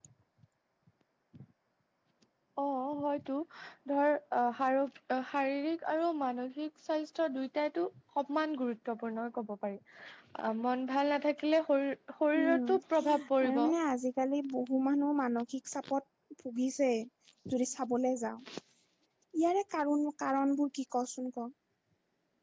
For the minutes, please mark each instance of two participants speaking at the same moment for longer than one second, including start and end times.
12.4-13.6

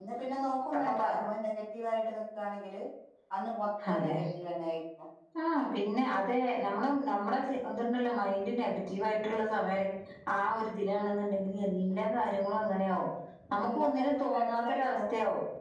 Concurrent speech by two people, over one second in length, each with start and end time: 13.6-15.0

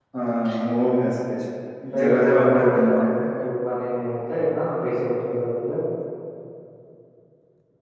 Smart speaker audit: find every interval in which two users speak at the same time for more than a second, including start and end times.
1.9-3.2

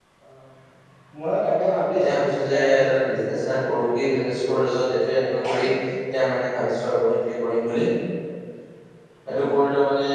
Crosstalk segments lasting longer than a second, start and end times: 1.9-3.9

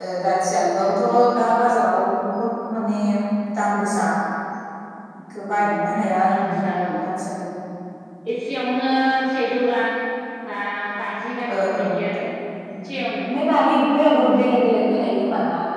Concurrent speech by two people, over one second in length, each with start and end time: none

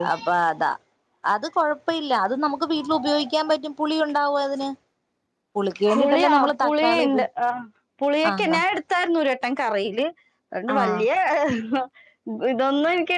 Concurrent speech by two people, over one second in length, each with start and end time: 5.9-7.2

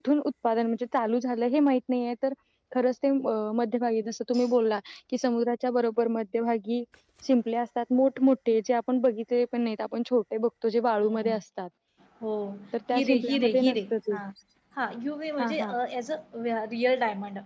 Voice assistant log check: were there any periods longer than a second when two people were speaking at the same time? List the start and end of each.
12.9-14.1

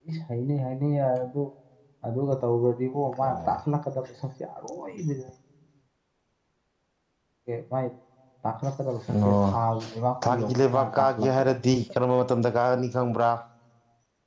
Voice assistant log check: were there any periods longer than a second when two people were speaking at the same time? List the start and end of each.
10.3-11.5

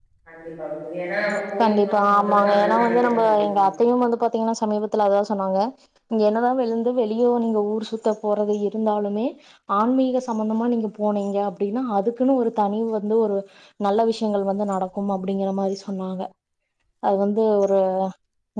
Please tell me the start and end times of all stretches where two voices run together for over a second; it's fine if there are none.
1.6-3.5

